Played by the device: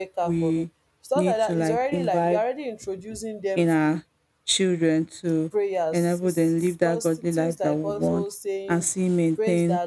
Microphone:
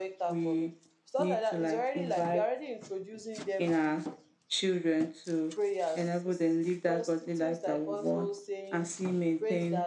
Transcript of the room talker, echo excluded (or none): none